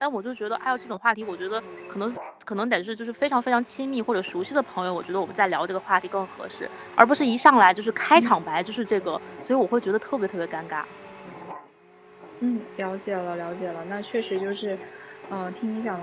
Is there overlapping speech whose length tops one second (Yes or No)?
No